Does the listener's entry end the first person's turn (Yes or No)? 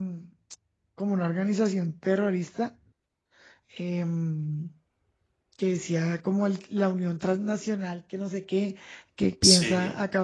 No